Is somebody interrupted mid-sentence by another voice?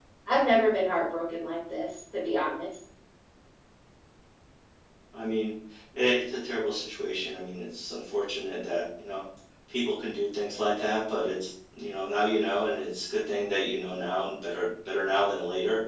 No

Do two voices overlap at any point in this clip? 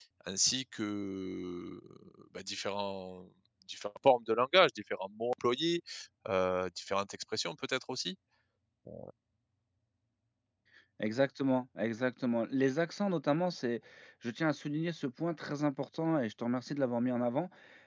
No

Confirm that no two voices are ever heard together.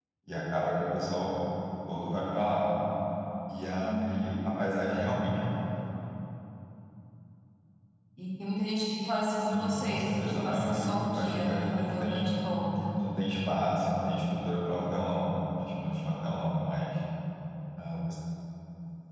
No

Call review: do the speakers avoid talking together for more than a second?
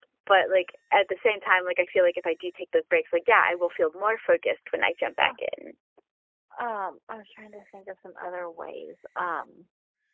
Yes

